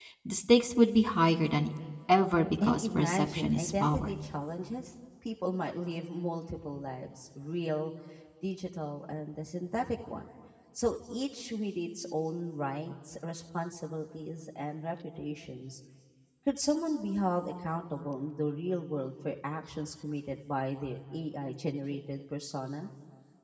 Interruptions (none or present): present